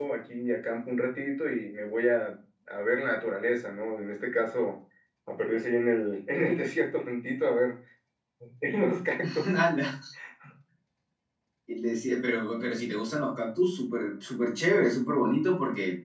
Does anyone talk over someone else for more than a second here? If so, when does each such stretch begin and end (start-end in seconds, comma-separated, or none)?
none